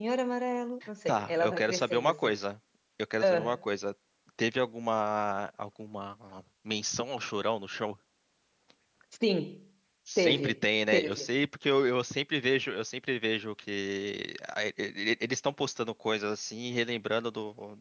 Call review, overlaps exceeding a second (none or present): present